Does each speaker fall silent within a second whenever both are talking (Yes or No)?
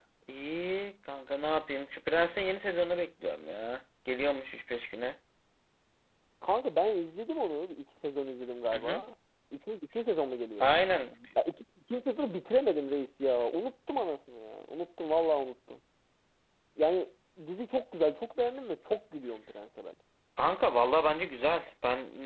Yes